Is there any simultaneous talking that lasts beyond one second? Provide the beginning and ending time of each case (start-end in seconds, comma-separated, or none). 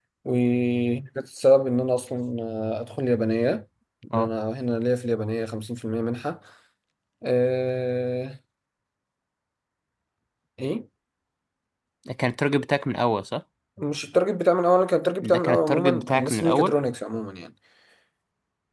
15.2-16.7